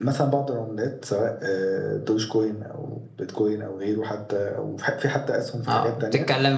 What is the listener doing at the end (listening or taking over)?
taking over